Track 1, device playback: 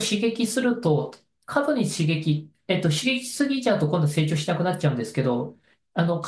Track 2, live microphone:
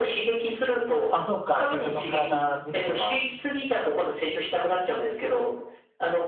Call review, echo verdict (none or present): present